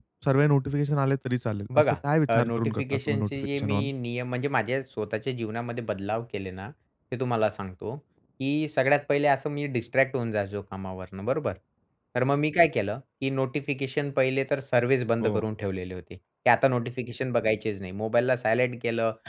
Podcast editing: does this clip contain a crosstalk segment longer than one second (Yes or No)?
Yes